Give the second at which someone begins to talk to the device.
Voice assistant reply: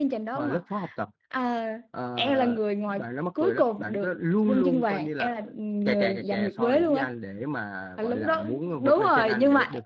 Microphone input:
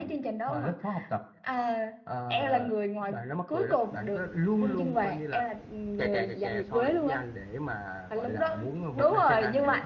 none

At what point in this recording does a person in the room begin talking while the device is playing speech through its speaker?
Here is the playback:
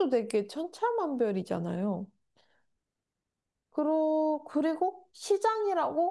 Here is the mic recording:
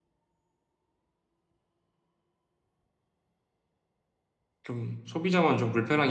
5 s

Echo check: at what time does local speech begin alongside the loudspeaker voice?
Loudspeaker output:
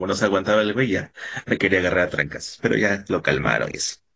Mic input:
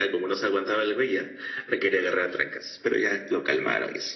none

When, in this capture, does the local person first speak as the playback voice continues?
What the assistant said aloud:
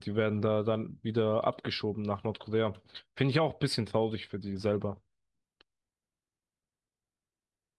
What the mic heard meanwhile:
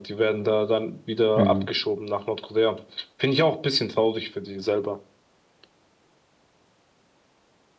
1 s

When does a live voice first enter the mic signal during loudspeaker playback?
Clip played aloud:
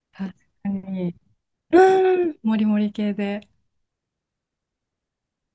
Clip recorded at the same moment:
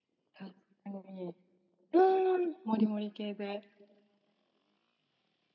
none

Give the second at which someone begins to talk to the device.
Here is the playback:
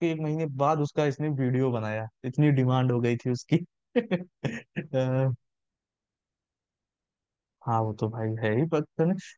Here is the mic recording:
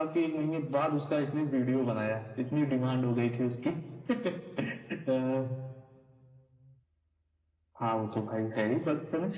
none

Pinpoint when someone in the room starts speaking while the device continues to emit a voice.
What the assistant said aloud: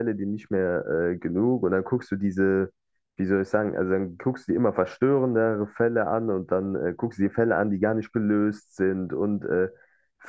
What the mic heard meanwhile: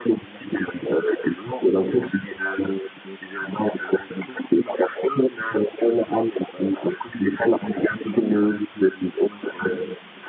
none

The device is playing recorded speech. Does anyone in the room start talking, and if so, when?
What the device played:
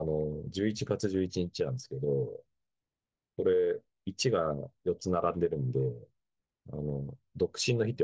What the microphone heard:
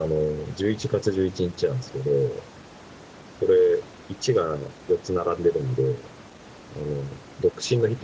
none

